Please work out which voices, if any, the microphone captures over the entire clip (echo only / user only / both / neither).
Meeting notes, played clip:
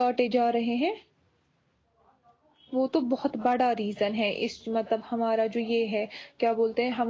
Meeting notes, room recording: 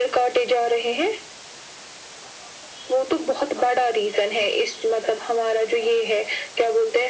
echo only